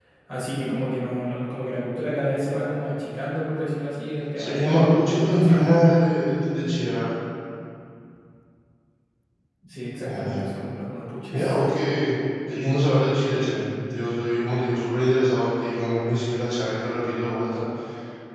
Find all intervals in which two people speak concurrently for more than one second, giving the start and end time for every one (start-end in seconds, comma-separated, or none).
4.3-5.7